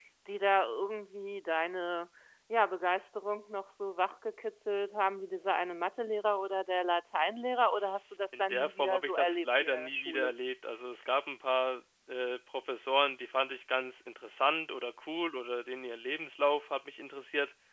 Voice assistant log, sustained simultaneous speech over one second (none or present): present